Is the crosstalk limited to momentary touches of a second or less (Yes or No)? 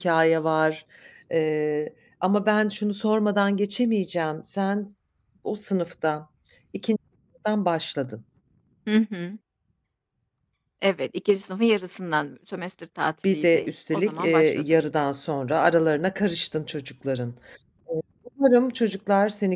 No